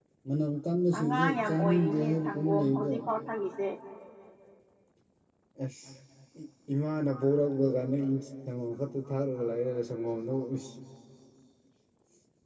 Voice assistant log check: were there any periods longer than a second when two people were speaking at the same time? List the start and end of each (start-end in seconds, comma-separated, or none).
1.0-2.9